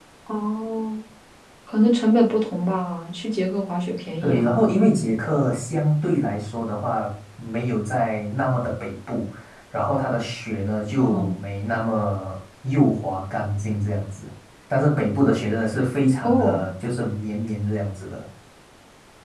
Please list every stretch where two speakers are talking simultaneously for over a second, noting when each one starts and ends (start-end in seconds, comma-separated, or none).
none